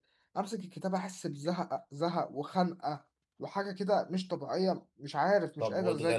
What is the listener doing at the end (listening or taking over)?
taking over